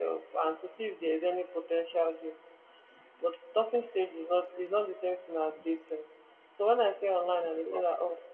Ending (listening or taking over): listening